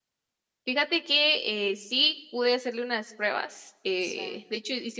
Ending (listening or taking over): listening